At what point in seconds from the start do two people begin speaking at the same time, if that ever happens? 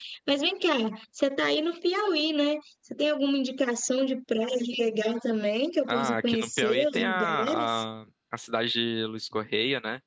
5.9 s

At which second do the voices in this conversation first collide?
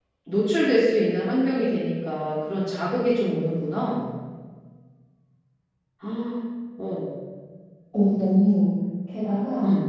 none

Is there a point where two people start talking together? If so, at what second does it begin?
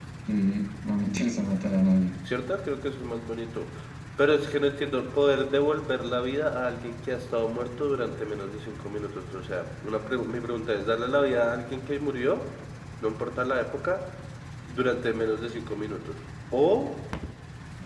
none

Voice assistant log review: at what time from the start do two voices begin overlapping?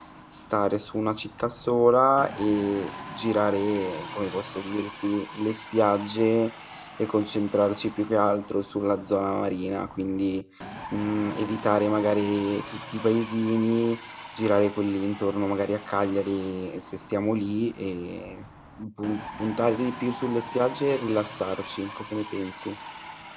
none

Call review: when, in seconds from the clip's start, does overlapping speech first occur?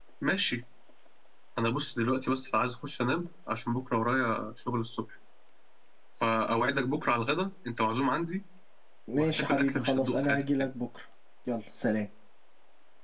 9.2 s

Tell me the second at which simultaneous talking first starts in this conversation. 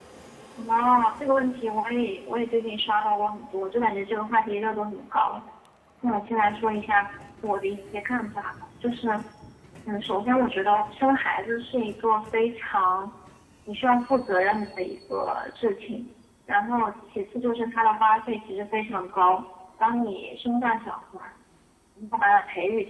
none

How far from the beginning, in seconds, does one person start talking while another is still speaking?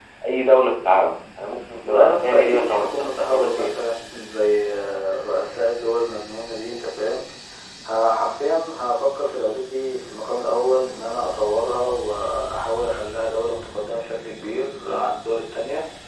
1.8 s

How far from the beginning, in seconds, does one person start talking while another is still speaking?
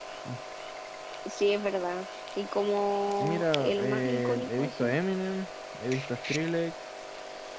3.2 s

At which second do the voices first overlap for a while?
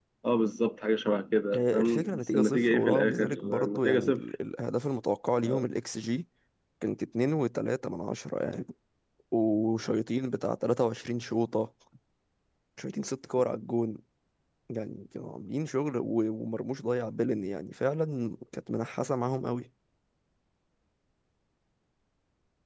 1.5 s

